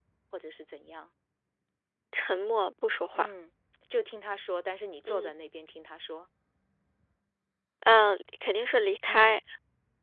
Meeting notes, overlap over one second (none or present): none